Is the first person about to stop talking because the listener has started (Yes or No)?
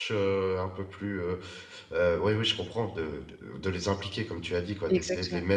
No